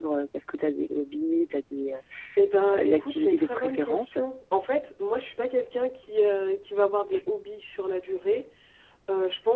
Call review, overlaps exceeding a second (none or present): present